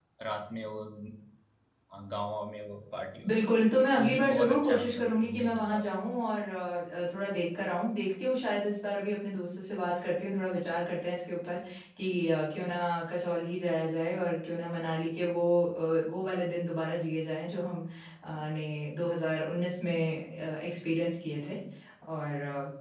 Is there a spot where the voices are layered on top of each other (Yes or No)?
Yes